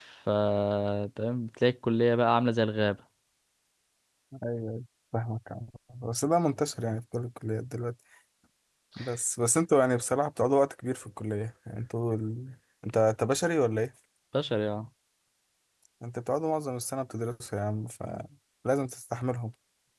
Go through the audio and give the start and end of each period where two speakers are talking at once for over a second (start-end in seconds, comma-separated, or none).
none